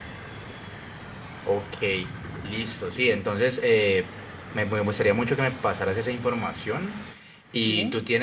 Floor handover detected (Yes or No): No